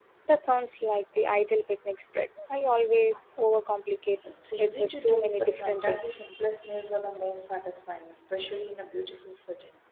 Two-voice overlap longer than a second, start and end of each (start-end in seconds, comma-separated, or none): 4.6-6.3